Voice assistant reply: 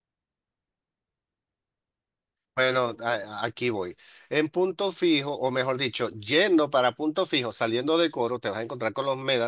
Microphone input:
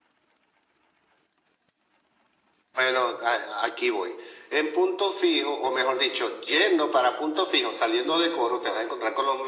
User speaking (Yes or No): No